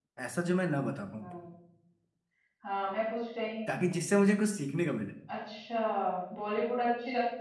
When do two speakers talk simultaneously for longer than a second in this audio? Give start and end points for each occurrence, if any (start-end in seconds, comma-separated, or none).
none